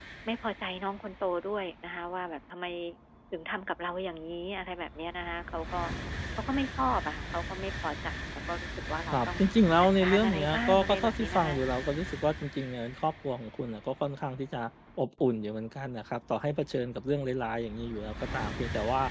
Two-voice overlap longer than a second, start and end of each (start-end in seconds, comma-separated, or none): 9.8-11.9